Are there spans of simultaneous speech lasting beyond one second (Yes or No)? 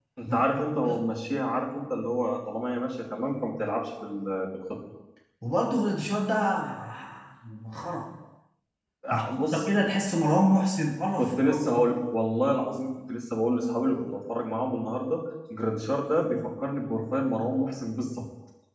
No